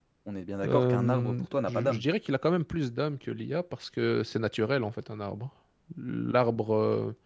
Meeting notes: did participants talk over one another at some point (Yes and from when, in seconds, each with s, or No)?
Yes, from 0.6 s